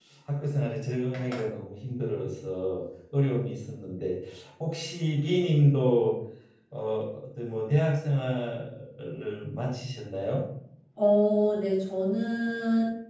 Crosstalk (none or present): none